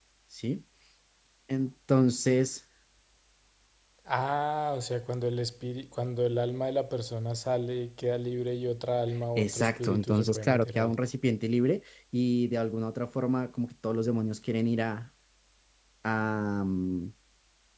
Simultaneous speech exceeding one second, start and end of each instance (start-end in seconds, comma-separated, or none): 9.4-10.9